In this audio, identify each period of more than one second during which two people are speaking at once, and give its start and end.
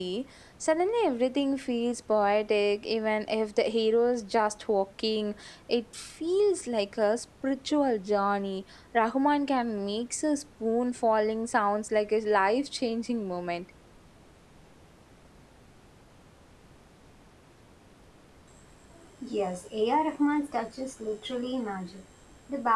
none

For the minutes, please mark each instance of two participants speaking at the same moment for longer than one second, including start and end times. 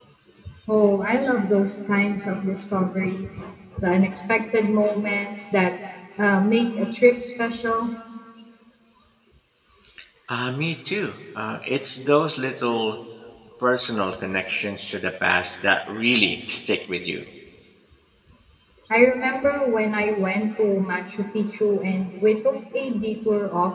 none

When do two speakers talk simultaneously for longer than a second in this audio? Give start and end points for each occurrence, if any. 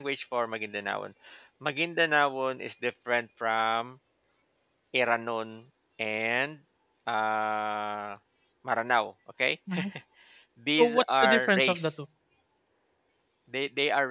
10.8-12.0

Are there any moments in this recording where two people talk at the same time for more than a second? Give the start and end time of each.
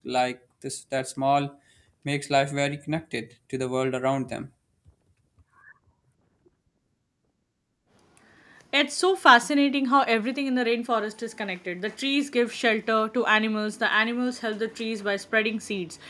none

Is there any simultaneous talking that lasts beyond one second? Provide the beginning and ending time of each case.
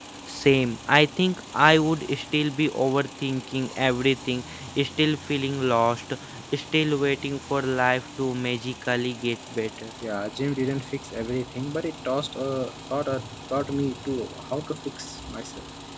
none

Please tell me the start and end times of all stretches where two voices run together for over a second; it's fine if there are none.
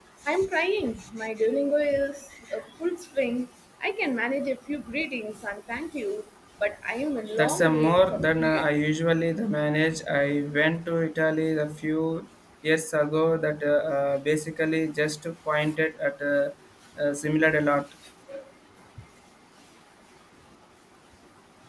7.4-8.7

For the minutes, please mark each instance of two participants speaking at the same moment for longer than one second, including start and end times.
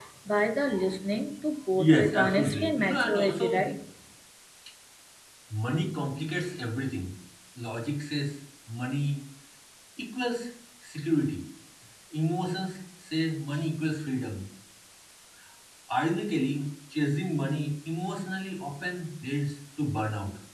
1.8-3.7

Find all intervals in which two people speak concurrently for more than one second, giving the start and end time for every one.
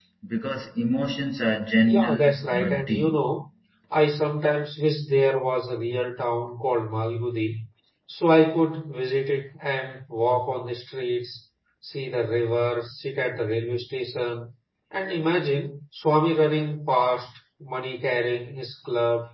1.9-3.2

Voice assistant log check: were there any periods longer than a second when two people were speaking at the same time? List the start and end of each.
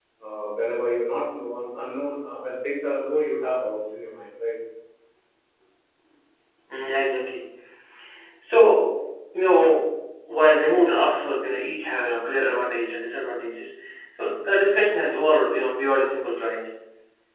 none

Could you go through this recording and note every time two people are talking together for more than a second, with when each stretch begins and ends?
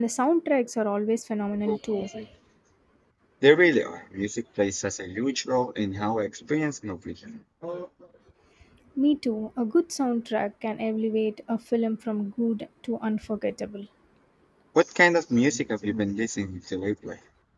none

